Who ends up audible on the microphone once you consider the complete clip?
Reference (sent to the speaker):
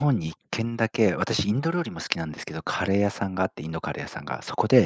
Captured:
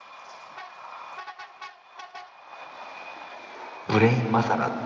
user only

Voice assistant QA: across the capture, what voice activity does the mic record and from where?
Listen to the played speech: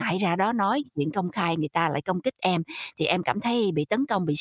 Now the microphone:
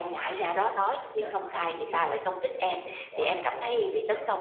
both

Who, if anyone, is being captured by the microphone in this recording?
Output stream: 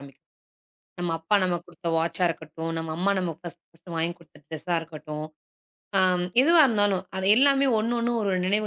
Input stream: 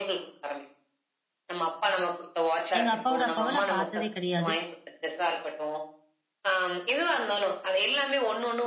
both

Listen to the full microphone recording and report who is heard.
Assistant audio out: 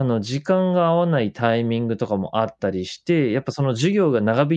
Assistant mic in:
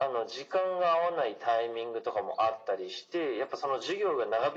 echo only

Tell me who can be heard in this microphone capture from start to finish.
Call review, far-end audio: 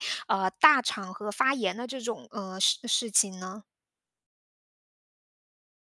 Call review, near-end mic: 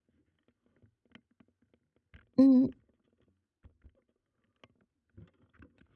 user only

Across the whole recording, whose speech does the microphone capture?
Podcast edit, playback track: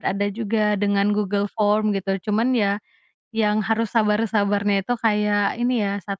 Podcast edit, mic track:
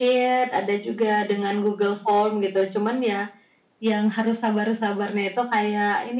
echo only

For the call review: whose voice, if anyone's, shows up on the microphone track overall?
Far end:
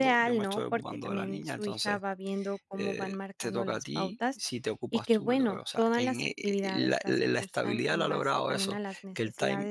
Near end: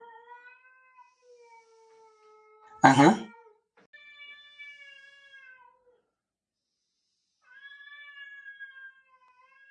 user only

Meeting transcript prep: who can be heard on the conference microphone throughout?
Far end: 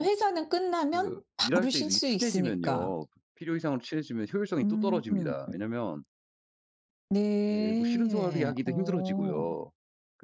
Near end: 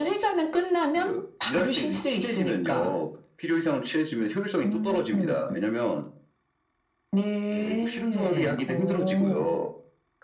echo only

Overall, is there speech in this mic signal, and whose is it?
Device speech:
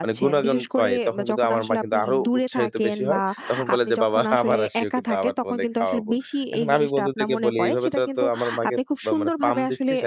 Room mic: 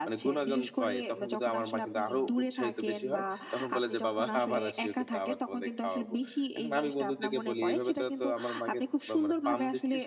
echo only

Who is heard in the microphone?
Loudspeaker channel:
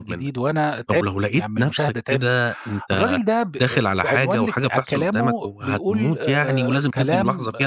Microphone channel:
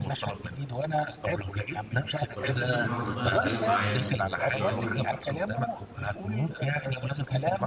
both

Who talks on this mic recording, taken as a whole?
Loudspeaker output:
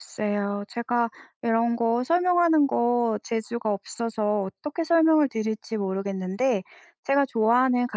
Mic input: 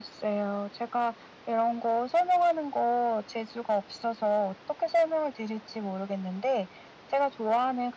echo only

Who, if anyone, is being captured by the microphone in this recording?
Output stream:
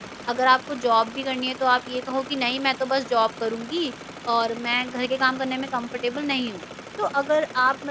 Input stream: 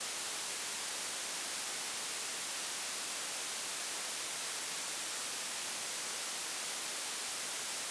neither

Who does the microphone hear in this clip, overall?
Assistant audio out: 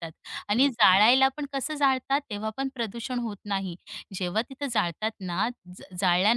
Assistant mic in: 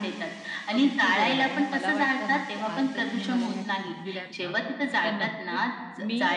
both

